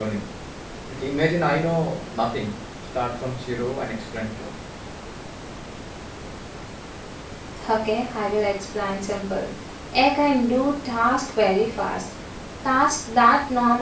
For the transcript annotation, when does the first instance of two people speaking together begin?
none

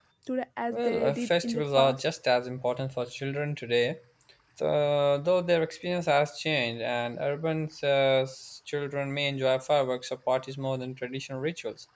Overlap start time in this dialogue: 0.7 s

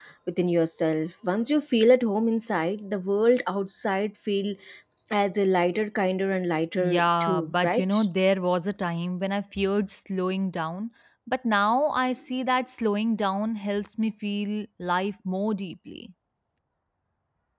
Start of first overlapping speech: 6.8 s

